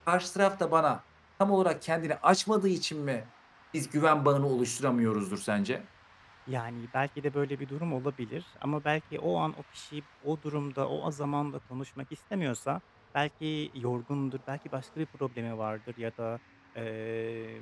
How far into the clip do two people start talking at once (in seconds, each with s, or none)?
none